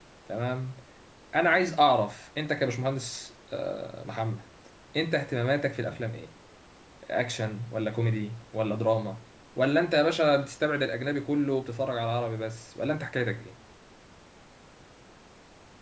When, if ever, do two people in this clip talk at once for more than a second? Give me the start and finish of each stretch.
none

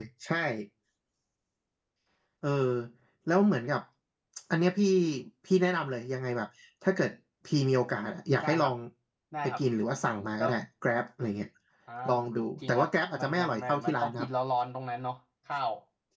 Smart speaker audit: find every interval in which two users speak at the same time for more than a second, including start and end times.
12.7-14.3

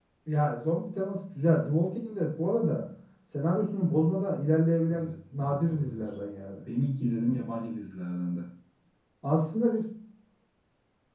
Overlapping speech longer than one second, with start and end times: 5.0-6.2

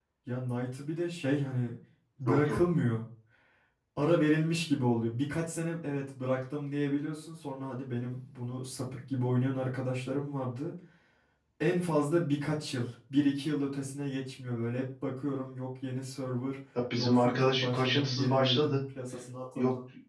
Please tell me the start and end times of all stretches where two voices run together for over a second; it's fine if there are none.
17.0-18.8

